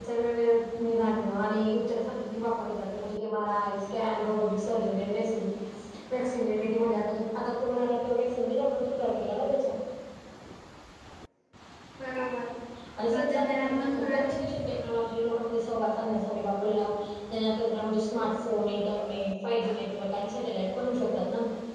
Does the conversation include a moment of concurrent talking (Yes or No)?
Yes